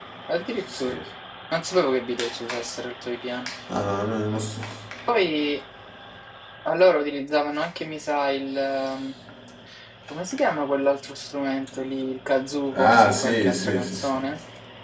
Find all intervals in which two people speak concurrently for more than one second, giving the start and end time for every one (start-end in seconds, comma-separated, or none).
12.7-14.2